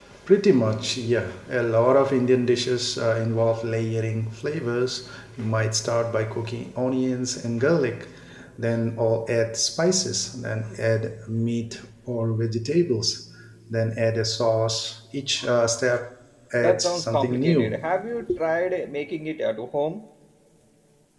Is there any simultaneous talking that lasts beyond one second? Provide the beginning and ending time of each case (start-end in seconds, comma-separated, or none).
16.6-17.8